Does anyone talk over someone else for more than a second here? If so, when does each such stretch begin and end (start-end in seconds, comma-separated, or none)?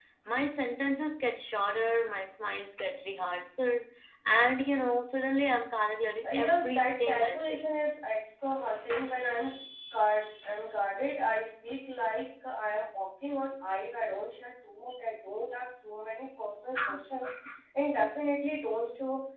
6.3-7.6